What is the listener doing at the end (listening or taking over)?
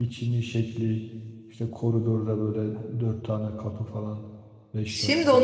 taking over